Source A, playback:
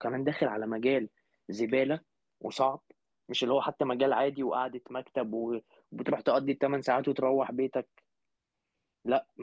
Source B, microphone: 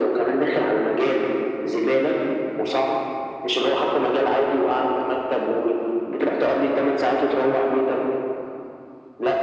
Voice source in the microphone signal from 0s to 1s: echo only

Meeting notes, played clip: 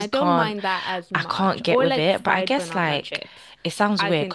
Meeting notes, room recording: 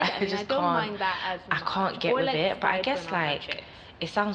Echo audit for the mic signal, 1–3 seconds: echo only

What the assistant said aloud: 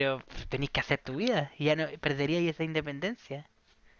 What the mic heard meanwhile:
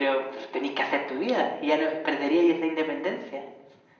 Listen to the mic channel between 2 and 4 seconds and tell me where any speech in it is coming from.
echo only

